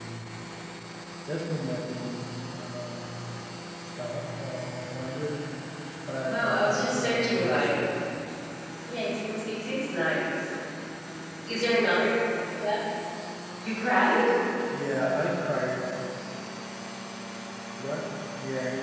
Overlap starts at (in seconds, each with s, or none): 6.2 s